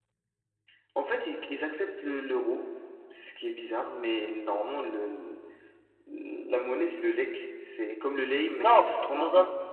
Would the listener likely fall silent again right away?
No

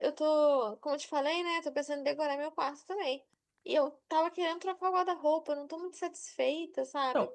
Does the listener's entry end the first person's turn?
Yes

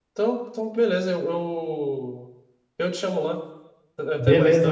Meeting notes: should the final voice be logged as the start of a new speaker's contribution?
Yes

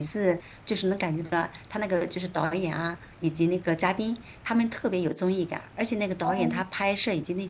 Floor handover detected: No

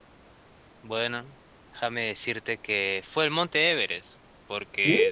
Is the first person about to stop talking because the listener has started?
No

